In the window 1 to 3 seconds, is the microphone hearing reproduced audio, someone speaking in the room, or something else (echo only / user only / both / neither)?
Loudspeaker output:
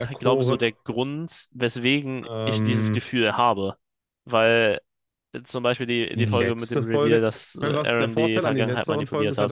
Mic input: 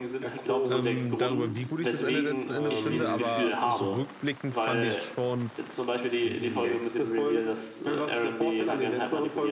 both